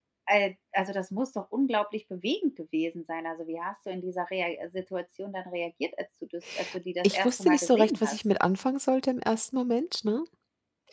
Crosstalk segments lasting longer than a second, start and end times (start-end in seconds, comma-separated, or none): 7.0-8.2